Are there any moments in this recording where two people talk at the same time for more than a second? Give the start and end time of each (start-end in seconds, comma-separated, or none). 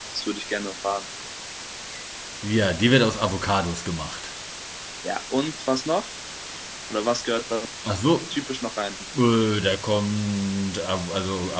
none